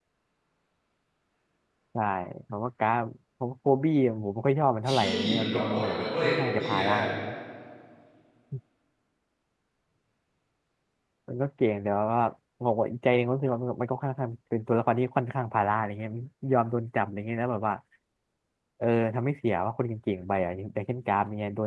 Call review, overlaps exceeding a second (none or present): present